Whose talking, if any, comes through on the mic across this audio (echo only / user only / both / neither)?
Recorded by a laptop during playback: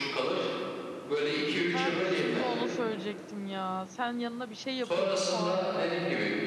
both